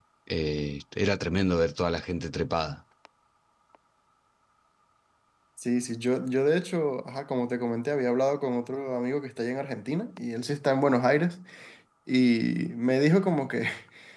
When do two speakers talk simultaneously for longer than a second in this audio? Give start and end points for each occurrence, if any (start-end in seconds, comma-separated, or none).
none